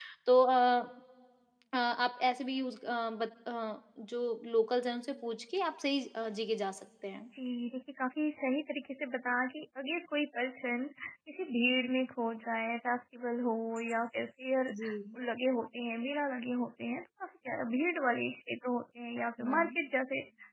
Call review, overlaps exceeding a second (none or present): none